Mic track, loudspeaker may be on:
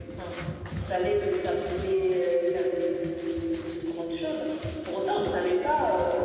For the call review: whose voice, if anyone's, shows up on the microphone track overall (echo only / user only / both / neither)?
echo only